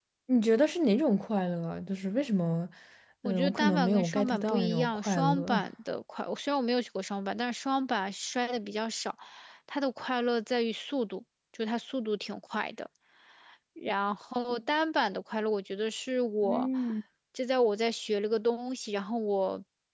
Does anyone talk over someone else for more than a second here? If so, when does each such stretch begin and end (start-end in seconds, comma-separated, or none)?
3.2-5.6